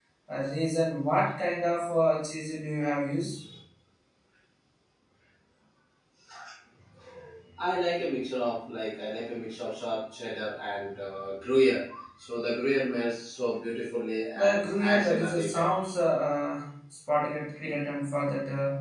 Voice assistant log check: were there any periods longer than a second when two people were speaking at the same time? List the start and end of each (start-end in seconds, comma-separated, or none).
14.3-15.7